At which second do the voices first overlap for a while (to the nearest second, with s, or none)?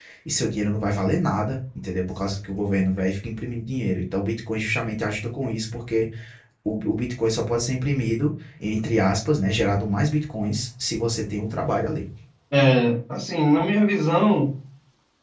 none